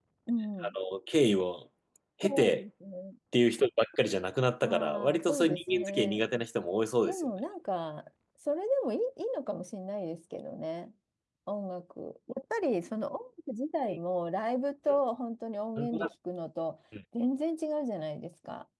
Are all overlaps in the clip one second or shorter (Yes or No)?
No